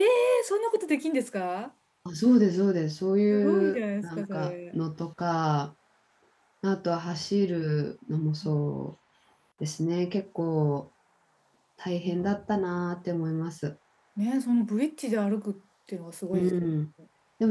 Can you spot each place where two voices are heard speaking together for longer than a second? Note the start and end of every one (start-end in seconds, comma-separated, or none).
3.3-4.8